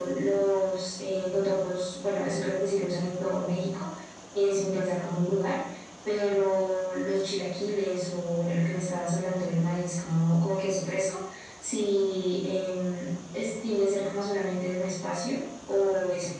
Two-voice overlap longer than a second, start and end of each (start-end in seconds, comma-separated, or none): none